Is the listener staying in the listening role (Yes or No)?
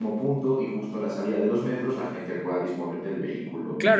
No